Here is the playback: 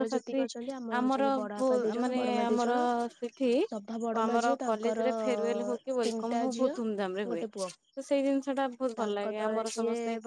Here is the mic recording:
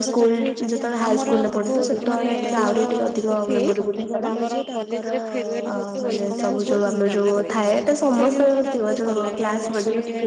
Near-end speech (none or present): present